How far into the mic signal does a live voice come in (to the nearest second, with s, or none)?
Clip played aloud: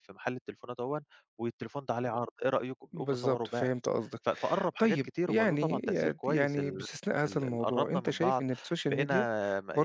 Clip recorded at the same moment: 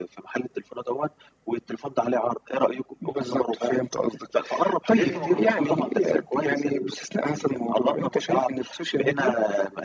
5 s